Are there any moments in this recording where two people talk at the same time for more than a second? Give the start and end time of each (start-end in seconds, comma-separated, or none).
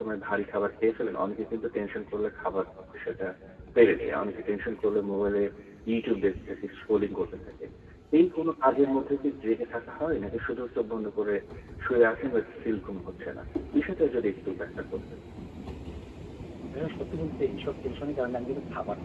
none